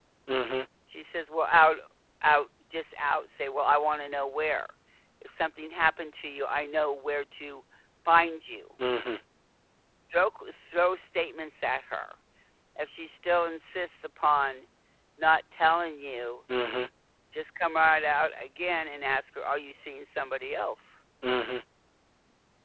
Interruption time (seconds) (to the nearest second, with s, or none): none